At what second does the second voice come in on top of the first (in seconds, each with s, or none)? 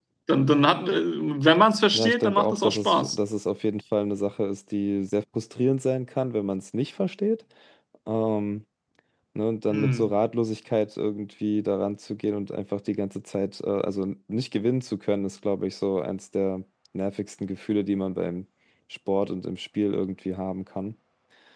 1.9 s